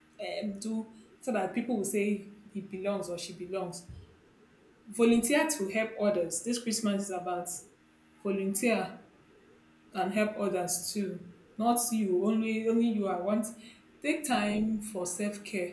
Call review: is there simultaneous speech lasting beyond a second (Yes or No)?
No